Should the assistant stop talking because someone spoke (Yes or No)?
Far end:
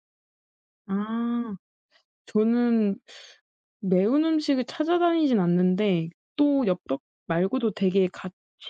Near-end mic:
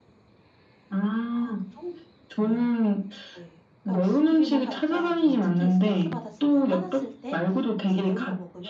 Yes